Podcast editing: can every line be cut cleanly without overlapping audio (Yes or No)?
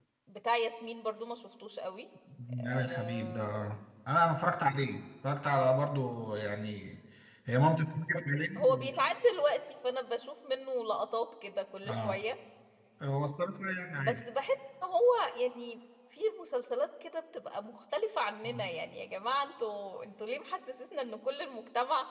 No